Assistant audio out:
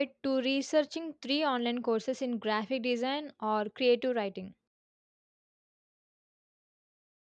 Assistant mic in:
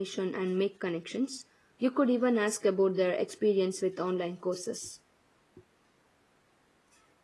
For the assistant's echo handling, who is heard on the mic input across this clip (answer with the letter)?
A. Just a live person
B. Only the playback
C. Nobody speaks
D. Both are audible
A